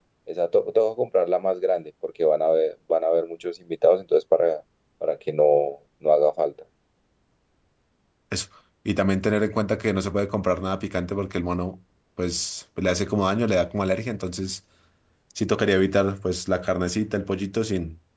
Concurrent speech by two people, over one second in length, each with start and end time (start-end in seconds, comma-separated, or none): none